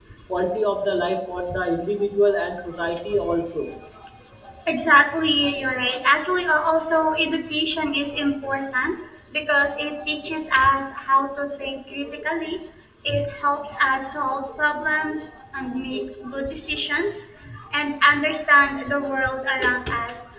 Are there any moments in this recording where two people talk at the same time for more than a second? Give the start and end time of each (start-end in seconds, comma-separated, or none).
none